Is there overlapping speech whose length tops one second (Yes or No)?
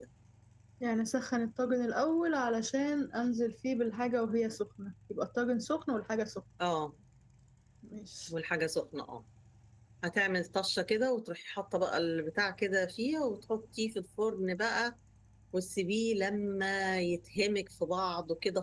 No